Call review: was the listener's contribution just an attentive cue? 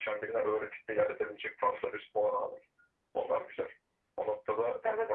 No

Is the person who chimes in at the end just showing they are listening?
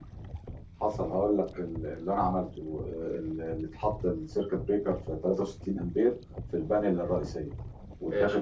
Yes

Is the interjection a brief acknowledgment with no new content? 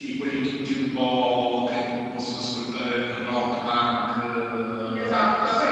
No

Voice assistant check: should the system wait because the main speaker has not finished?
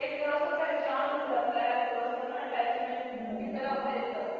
Yes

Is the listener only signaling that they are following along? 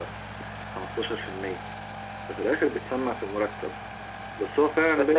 Yes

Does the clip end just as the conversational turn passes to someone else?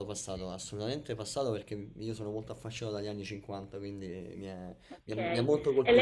Yes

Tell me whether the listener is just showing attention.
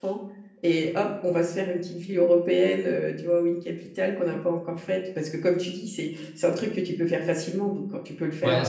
No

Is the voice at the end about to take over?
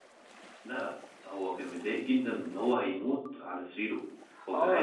Yes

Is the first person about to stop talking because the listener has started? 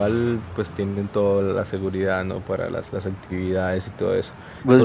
No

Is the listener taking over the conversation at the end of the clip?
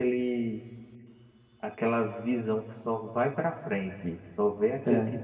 No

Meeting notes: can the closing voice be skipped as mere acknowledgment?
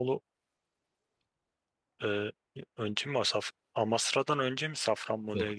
No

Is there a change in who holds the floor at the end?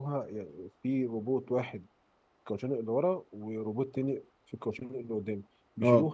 No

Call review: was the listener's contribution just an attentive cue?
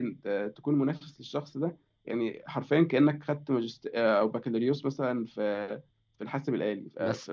No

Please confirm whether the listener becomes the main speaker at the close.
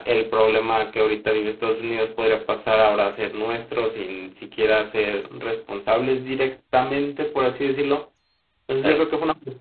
No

